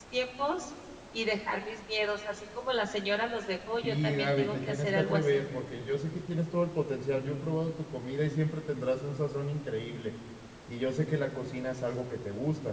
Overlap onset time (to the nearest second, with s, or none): 4 s